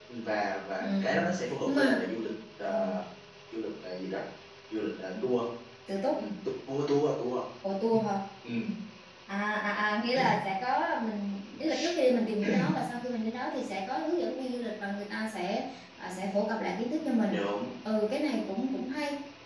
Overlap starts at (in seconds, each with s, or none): 0.8 s